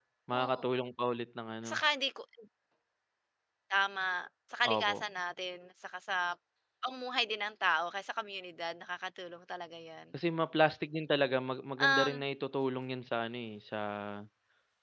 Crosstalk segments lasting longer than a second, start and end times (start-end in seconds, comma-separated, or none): none